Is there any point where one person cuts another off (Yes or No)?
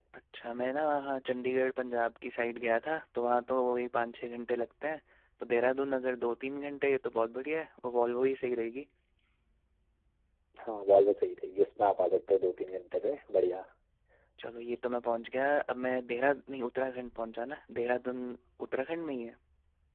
No